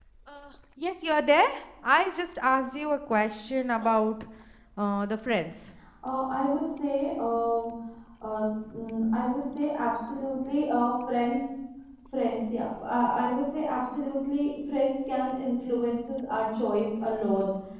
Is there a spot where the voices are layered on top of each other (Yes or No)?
No